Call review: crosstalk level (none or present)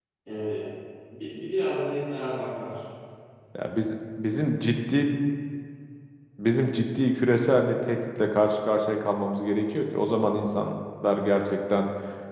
none